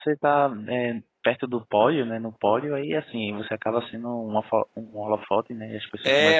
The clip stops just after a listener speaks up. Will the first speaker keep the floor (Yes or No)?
No